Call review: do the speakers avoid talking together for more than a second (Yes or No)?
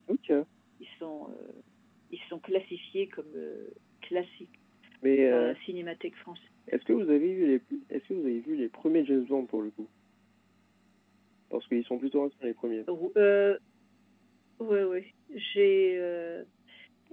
Yes